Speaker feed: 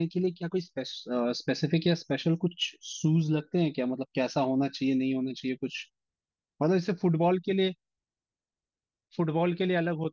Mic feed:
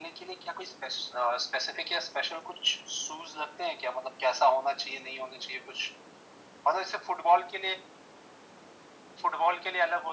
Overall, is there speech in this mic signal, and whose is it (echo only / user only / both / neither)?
echo only